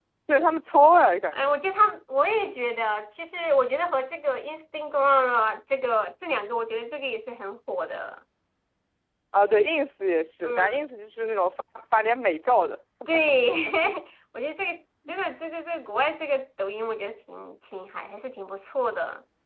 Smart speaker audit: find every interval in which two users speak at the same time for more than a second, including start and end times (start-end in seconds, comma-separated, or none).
none